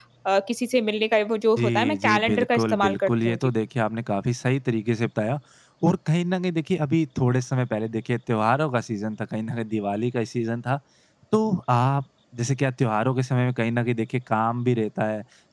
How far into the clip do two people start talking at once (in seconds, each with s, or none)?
1.6 s